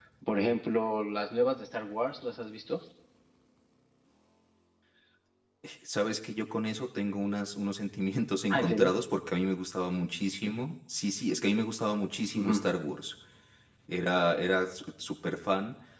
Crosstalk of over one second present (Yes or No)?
No